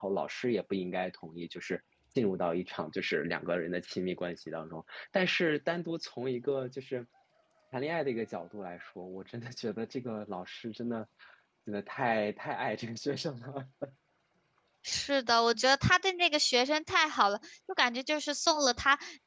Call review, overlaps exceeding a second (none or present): none